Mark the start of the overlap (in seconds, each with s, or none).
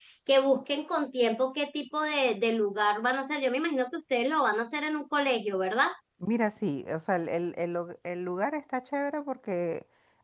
none